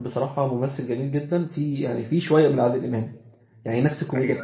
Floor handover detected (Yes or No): No